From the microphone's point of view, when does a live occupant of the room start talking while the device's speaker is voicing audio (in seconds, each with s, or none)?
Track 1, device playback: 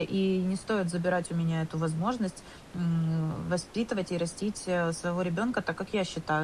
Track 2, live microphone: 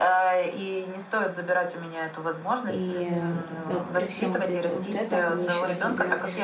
2.7 s